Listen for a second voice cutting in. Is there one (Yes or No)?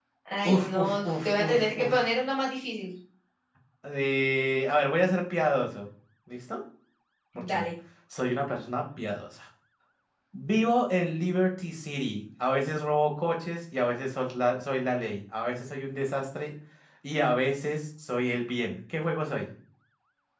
Yes